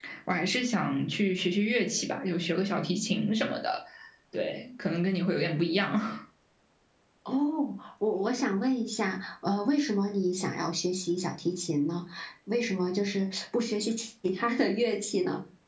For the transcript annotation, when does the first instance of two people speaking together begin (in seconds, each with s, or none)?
none